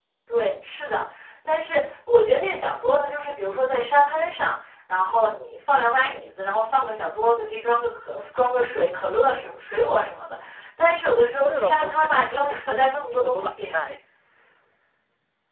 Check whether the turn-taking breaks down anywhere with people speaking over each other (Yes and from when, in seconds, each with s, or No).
Yes, from 11.5 s